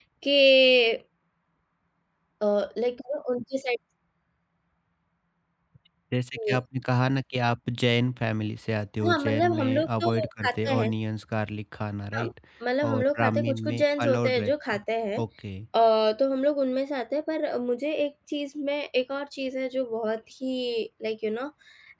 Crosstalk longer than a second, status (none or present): present